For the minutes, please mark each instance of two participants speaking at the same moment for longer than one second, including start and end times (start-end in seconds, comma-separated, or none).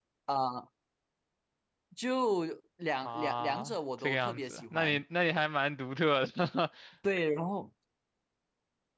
3.0-5.0